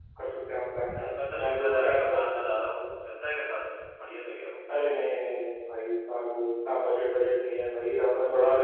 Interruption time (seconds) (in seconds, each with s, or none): 0.9 s